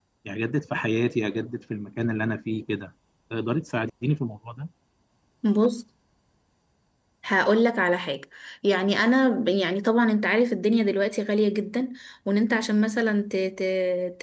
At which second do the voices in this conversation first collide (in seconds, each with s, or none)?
none